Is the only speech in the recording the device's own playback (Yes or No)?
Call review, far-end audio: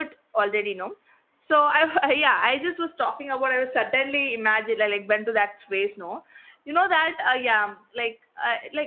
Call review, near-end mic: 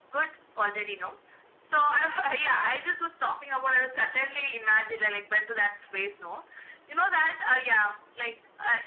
Yes